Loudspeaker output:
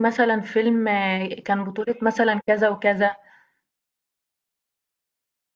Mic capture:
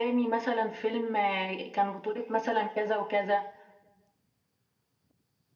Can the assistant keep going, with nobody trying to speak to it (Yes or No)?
Yes